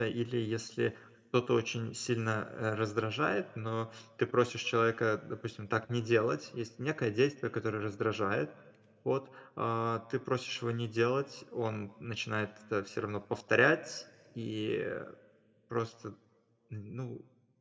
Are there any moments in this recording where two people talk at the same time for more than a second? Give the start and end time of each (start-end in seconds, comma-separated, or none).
none